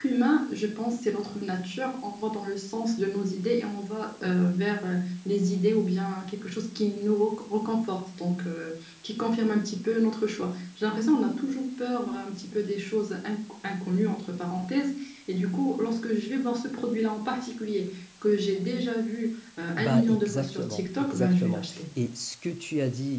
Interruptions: present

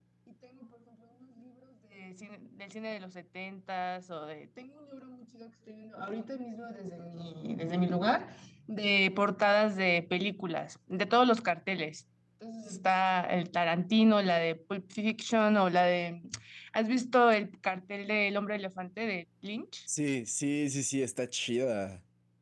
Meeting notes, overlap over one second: none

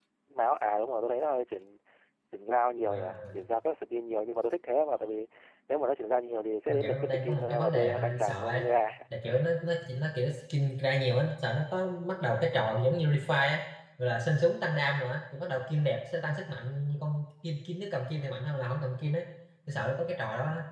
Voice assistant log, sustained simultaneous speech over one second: present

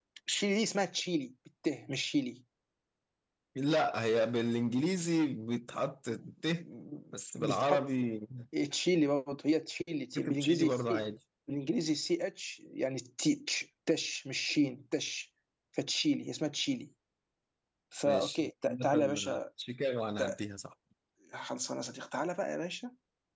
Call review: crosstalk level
present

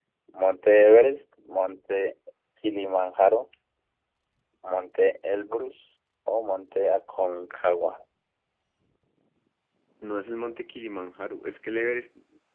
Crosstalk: none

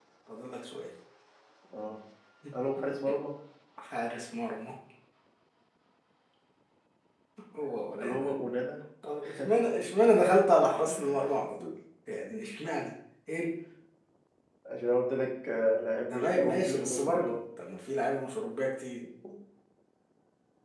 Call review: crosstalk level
present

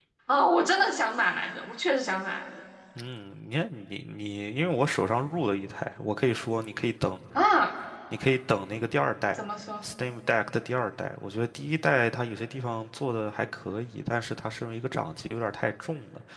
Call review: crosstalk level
none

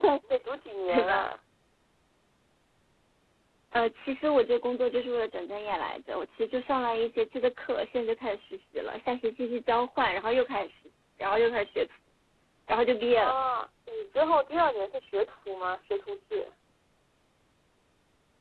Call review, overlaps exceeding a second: none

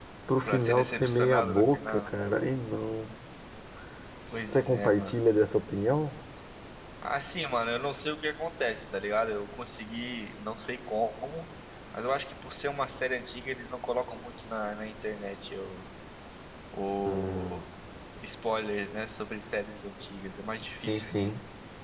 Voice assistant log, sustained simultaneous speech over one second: present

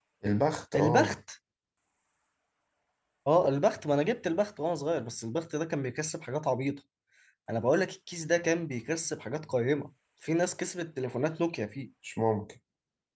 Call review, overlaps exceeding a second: none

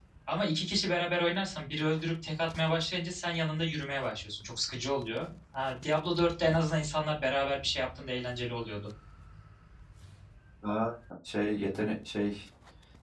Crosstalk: none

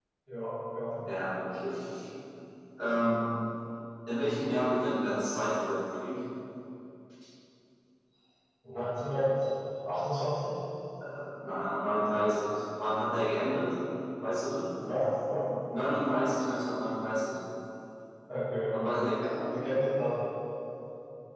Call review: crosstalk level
none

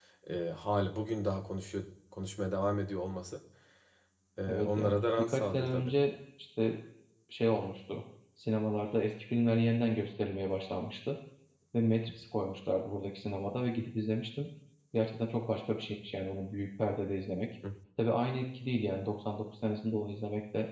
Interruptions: present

